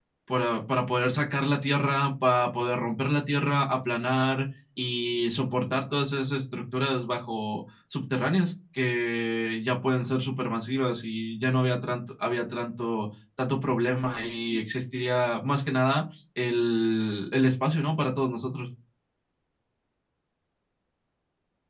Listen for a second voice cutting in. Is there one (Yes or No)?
No